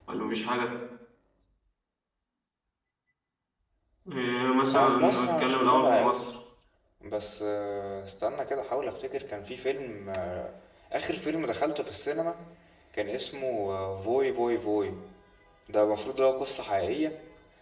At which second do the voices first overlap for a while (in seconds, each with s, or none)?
4.7 s